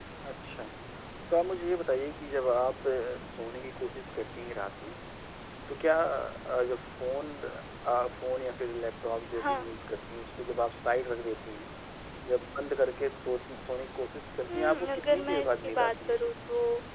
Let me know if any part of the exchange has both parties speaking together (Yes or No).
Yes